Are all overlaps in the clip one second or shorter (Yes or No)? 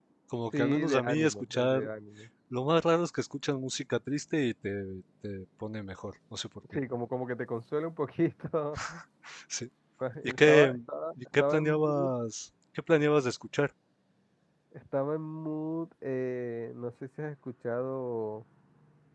No